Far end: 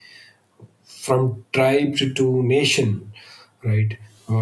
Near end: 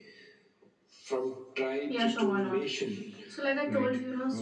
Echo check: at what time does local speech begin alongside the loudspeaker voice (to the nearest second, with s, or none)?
2 s